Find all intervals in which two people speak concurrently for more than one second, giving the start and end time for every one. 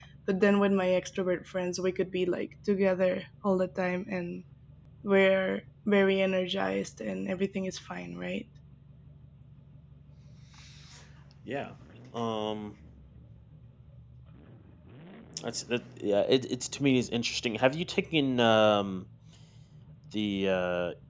none

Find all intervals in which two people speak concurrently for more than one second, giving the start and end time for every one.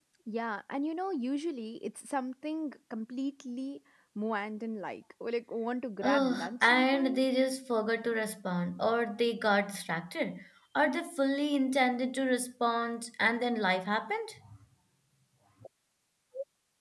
6.0-7.2

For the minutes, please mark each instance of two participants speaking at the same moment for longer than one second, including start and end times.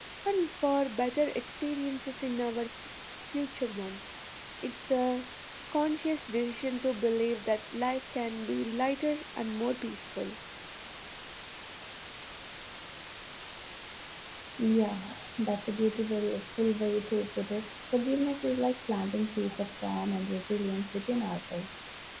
none

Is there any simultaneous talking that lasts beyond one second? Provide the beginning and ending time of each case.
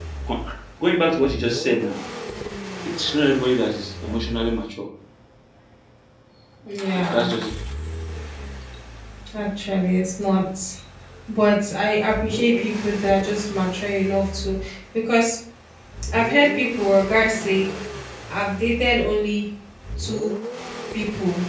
none

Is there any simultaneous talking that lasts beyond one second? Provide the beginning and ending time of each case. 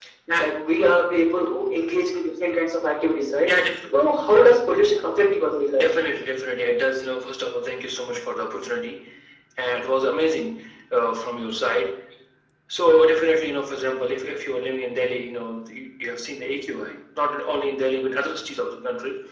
none

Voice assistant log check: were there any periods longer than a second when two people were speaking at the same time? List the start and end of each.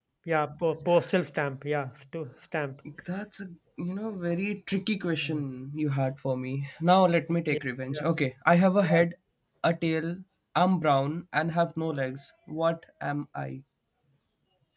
none

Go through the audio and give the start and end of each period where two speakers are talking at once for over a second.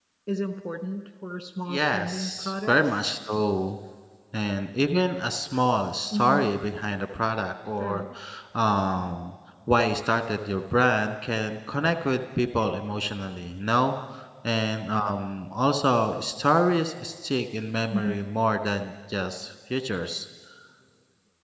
1.7-3.0

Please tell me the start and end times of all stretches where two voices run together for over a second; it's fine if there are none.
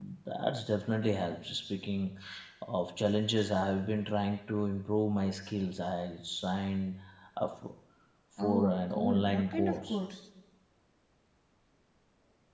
8.4-10.0

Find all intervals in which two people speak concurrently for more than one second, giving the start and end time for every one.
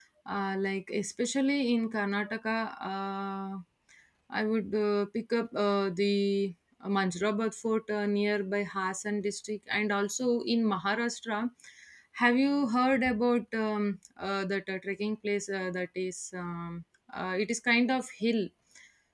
none

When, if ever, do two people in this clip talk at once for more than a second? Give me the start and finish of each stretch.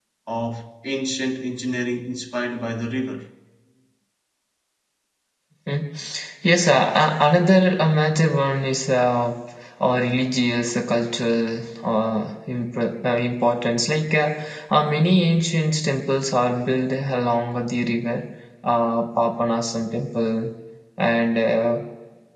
none

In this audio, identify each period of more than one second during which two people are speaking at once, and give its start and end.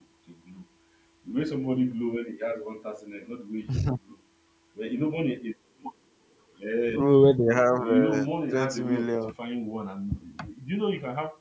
7.8-9.3

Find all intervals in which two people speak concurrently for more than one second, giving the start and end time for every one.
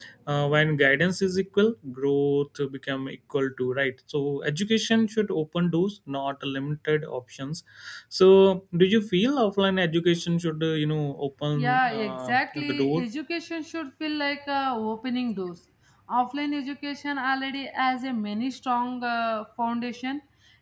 11.6-13.1

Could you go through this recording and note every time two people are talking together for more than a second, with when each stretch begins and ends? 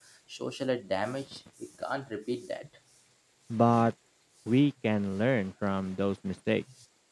none

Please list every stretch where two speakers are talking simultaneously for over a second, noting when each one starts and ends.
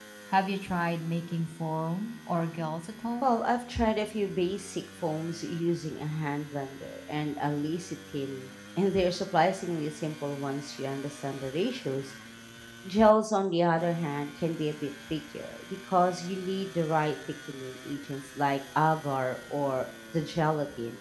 none

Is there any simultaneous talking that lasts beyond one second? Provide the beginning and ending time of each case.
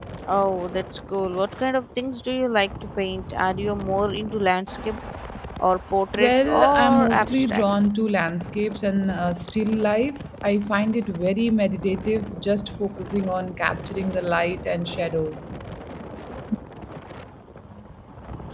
6.2-7.6

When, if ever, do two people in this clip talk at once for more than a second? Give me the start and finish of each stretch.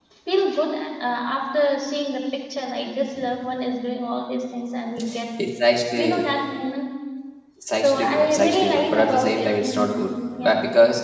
7.8-10.0

